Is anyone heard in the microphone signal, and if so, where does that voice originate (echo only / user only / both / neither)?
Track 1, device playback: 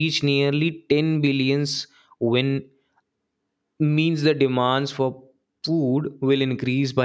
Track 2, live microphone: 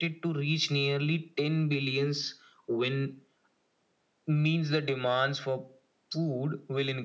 echo only